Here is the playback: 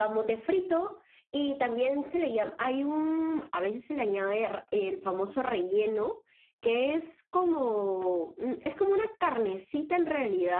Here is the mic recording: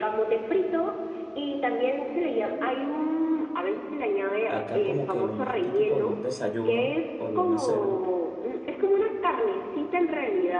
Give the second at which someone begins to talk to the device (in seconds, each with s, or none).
4.5 s